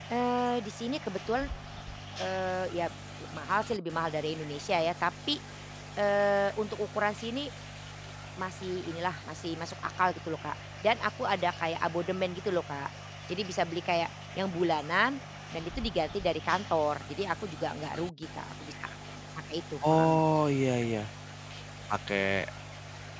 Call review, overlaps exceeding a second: none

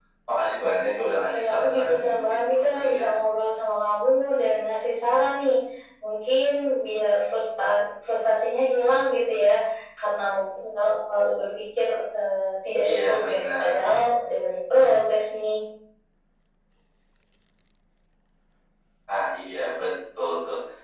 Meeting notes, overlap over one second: present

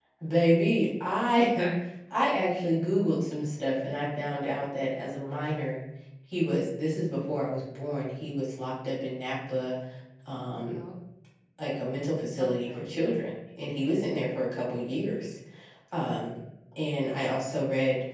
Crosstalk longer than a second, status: none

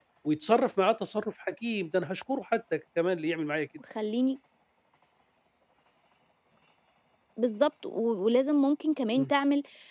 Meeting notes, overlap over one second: none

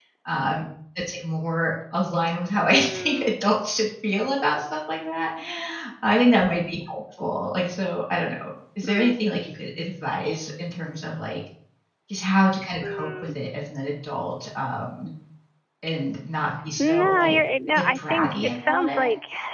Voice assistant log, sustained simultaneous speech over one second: present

